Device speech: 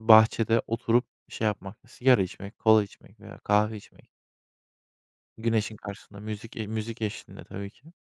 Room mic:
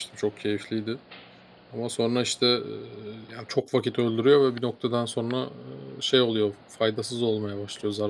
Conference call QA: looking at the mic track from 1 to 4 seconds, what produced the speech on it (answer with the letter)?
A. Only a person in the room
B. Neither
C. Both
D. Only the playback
A